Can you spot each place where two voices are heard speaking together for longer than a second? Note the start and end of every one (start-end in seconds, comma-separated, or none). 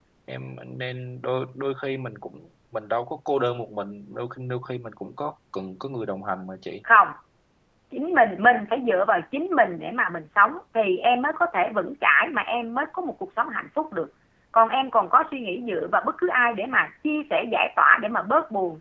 none